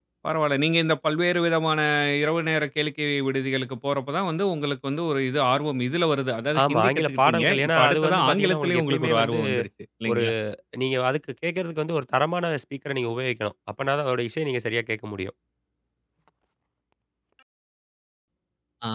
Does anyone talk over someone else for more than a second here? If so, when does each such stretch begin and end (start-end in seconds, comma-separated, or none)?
6.7-9.4